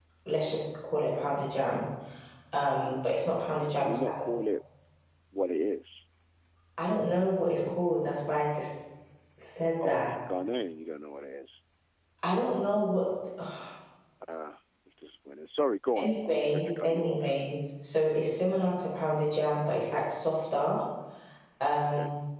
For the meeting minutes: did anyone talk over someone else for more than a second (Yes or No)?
Yes